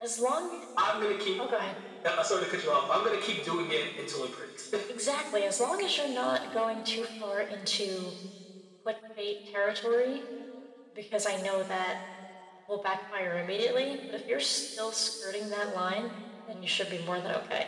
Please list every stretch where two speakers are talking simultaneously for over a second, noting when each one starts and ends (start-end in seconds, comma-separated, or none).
none